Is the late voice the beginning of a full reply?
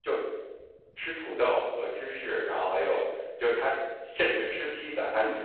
No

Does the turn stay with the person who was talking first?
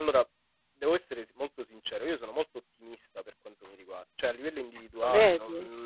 Yes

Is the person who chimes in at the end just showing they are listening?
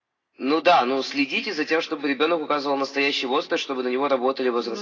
No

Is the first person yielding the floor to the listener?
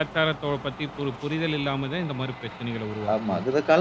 Yes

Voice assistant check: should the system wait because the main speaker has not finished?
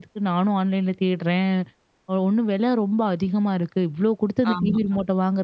Yes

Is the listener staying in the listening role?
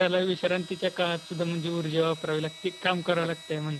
No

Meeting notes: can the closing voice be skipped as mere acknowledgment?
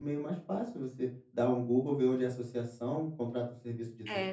No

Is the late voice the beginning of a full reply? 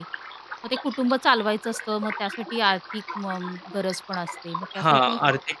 Yes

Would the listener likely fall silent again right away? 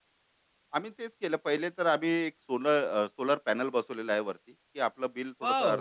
No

